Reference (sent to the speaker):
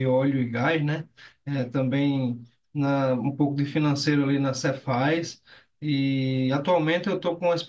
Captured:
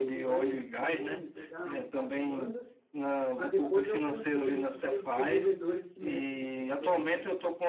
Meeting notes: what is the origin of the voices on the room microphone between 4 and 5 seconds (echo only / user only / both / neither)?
both